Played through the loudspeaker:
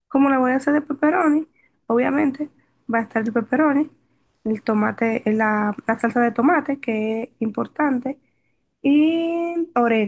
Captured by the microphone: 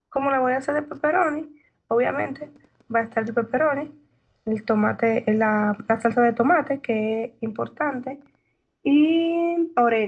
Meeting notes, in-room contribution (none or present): none